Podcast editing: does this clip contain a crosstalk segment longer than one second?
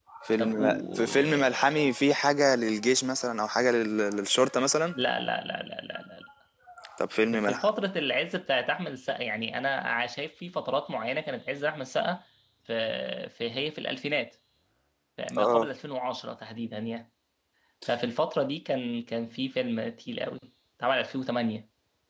Yes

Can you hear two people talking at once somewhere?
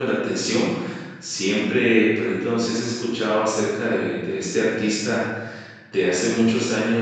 No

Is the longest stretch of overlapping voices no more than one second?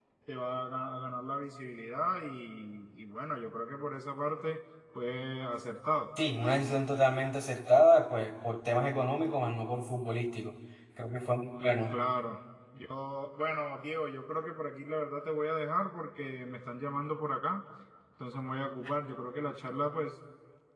Yes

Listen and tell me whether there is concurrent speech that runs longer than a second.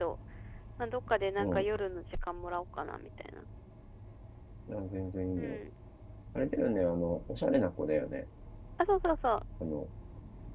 No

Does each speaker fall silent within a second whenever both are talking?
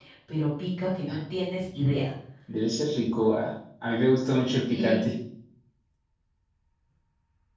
Yes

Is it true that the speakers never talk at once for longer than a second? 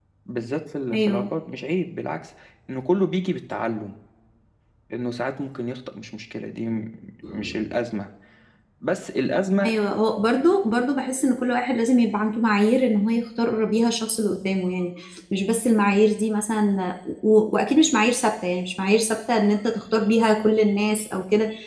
Yes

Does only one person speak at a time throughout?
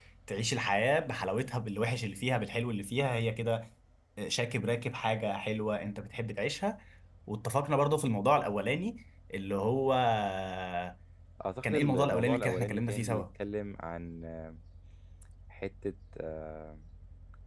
No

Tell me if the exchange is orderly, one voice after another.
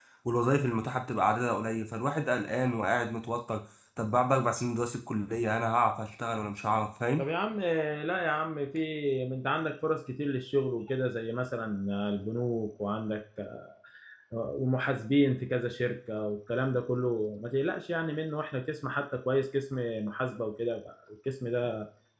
Yes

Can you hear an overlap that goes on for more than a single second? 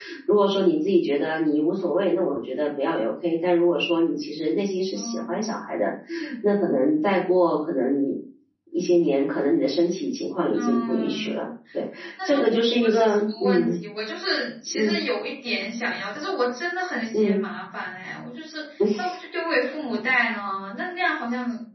Yes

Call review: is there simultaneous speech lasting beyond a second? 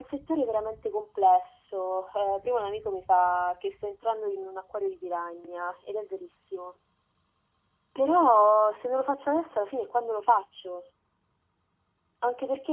No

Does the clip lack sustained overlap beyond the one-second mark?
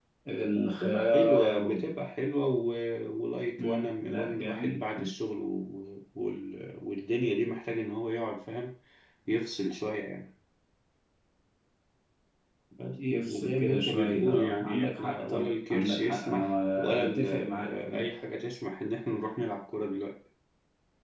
No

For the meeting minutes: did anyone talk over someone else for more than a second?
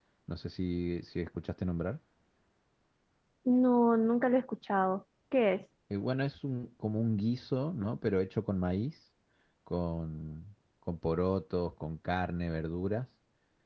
No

